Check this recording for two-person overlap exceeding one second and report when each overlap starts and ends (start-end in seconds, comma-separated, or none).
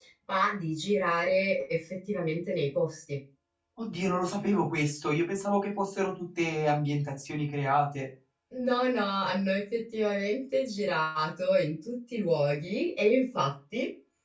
none